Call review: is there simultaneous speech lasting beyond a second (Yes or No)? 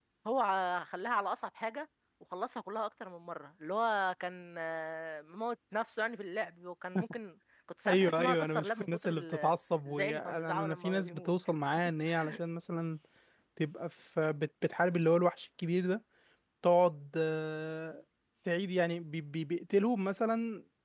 Yes